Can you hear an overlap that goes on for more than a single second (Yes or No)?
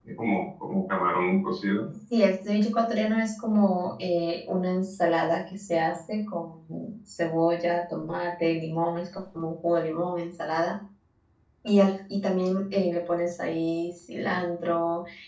No